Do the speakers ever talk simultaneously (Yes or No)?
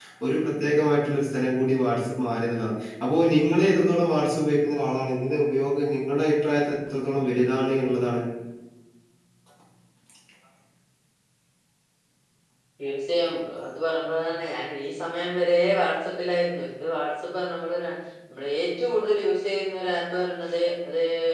No